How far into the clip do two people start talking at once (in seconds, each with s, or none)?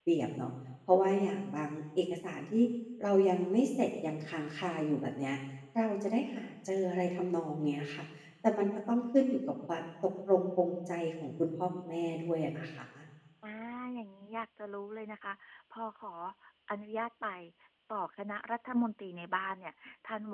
none